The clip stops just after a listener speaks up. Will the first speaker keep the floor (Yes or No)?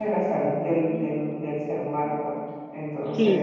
No